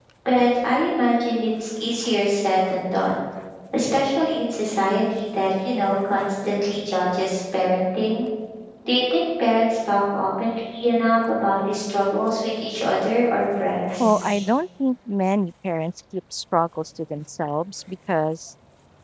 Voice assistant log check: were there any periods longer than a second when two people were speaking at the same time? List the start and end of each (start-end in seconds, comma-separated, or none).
none